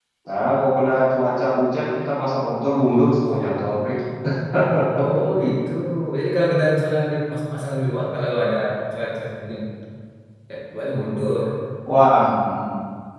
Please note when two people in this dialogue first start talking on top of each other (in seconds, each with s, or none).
none